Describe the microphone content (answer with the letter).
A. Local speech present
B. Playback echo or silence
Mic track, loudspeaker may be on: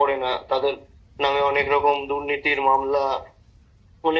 B